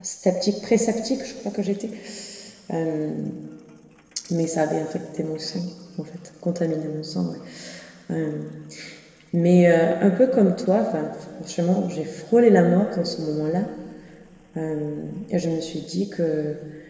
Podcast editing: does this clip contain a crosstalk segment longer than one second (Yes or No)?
No